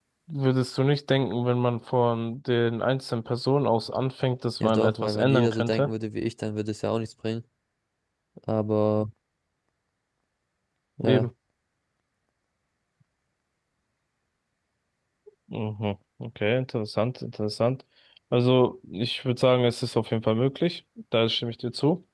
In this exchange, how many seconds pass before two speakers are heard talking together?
5 s

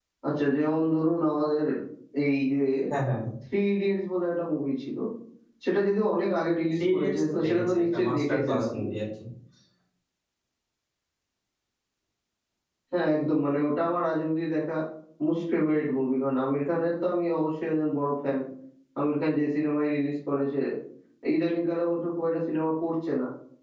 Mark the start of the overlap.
7 s

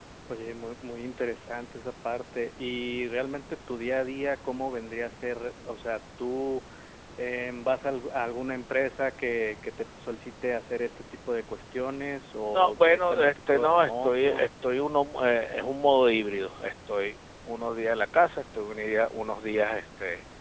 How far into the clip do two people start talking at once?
13 s

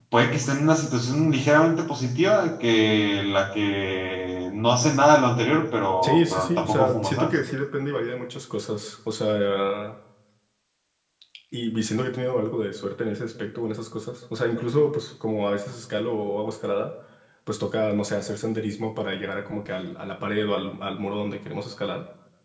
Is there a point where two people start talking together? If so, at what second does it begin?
6 s

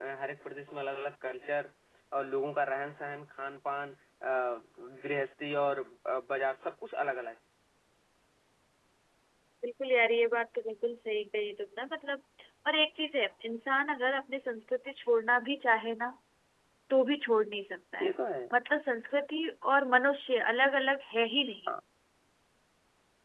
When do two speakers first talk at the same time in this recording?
none

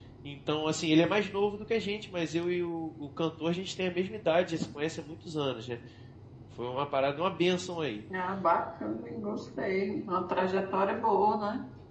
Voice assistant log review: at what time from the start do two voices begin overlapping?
none

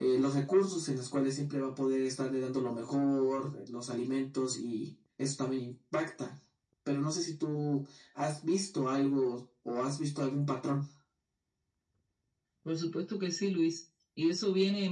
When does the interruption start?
none

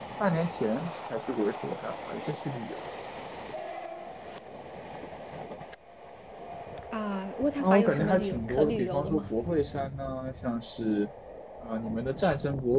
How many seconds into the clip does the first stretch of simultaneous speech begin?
8 s

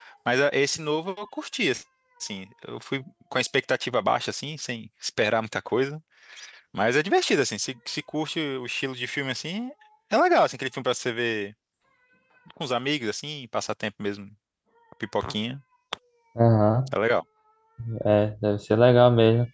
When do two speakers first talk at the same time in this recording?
none

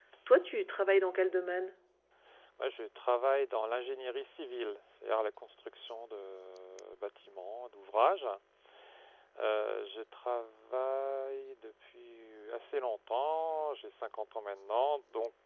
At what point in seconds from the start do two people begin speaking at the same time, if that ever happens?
none

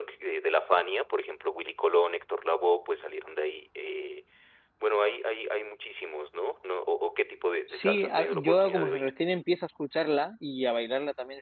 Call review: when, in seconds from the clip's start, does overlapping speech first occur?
8 s

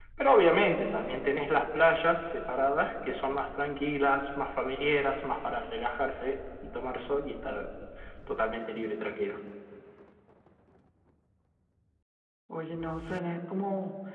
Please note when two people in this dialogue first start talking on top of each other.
none

